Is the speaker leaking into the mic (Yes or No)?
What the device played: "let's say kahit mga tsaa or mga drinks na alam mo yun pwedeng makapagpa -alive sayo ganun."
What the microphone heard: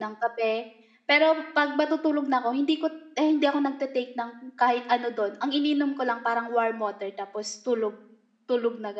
No